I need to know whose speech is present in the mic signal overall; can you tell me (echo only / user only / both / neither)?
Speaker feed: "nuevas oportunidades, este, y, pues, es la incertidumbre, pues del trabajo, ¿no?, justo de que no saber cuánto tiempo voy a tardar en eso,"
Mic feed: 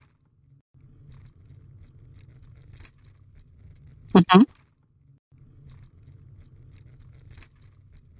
user only